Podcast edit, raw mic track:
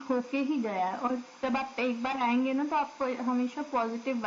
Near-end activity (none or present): none